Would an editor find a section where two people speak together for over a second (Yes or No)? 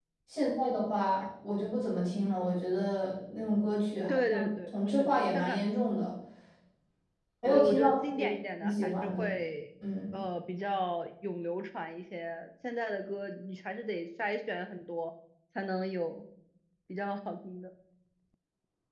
Yes